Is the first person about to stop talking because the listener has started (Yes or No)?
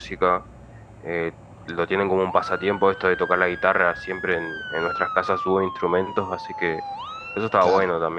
Yes